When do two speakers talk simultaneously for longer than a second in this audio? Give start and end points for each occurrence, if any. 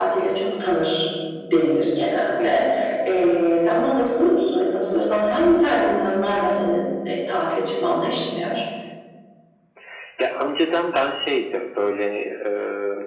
none

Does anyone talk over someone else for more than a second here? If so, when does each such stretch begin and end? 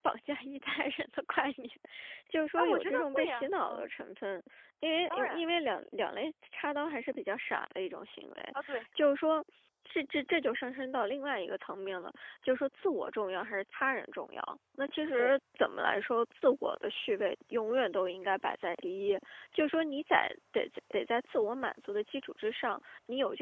2.6-3.8

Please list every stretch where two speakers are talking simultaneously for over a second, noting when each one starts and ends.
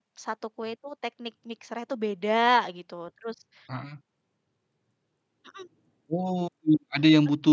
none

